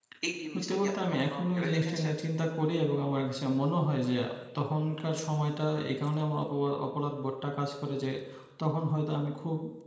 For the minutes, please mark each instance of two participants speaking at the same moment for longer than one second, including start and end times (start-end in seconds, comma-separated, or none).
0.5-2.1